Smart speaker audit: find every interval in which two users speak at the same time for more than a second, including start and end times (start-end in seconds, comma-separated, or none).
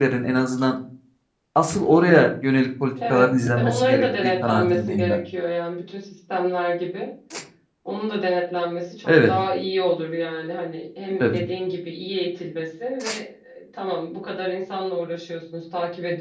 3.1-5.2